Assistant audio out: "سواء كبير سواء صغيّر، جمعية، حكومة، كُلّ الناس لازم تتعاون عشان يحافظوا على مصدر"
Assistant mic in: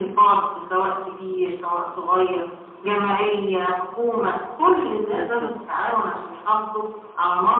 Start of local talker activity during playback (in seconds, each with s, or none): 5.1 s